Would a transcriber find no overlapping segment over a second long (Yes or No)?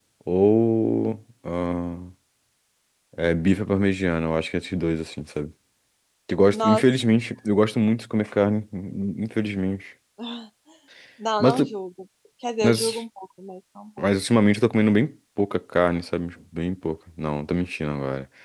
Yes